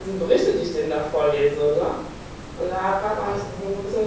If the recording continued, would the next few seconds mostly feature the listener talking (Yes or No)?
No